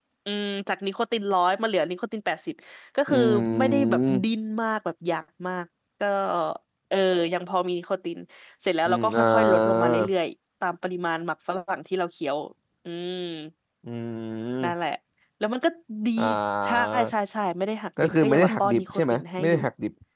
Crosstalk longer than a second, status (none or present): present